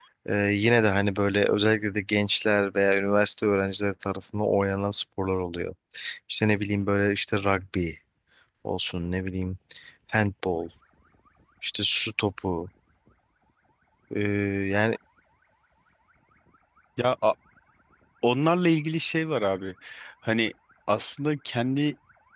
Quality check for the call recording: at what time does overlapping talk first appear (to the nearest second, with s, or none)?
none